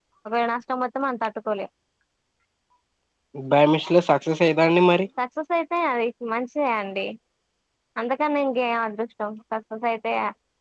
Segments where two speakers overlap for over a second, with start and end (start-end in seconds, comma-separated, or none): none